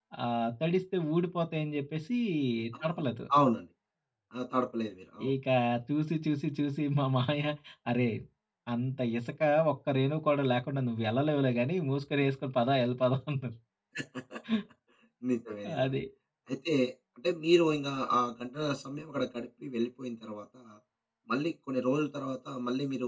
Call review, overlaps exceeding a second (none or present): none